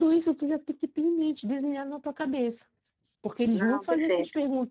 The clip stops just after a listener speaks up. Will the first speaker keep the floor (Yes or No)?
Yes